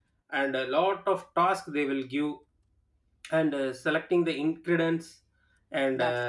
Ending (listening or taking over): listening